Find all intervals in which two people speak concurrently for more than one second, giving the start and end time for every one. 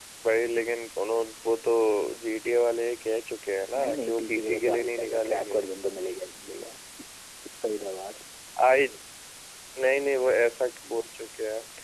3.7-5.6

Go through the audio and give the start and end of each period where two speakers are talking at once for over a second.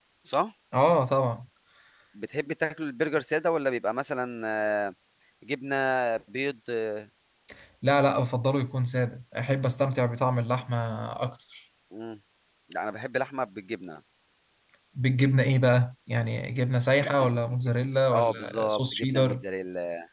18.1-19.4

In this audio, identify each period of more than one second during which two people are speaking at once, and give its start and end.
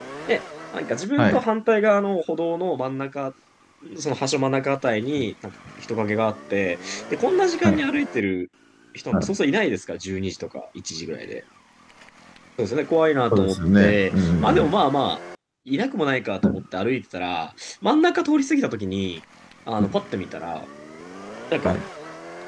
13.3-14.8

